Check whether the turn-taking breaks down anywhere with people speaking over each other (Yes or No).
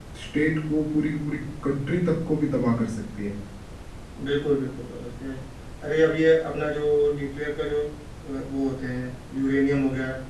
No